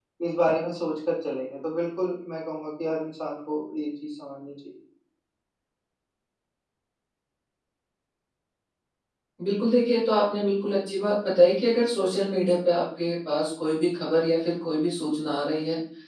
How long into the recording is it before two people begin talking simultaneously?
none

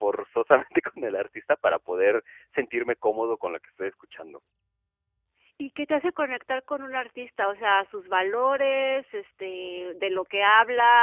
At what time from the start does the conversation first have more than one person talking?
none

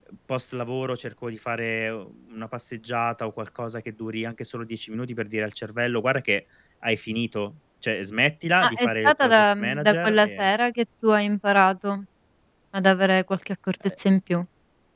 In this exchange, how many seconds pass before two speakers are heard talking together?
9 s

